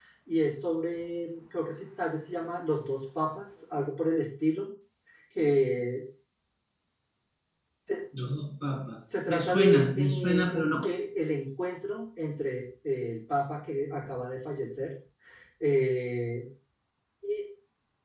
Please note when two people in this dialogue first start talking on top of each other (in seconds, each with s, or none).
9.1 s